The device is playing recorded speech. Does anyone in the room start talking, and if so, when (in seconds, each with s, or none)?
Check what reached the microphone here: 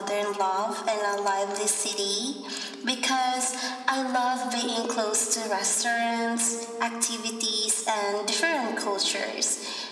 none